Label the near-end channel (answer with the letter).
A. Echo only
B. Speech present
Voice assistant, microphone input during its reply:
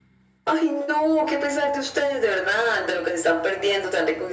A